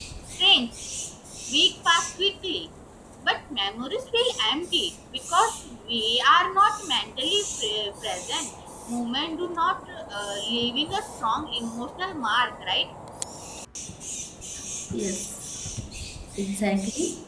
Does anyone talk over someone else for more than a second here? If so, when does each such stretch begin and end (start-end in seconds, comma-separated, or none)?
none